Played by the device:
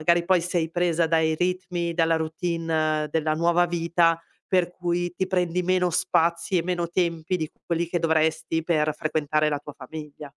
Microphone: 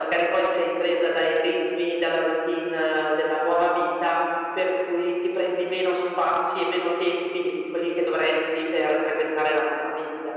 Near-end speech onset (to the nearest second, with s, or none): none